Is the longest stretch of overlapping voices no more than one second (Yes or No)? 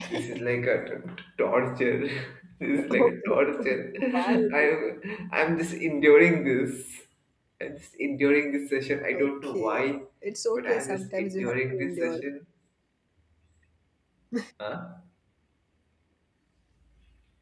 No